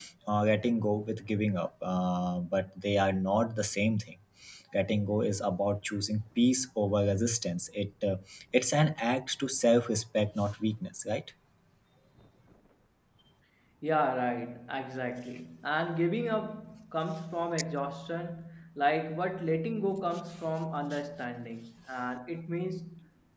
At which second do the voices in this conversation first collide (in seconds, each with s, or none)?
none